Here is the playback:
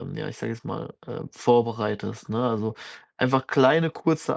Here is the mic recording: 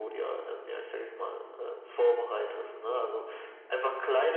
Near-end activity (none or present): none